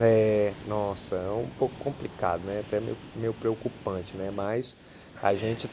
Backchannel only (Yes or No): Yes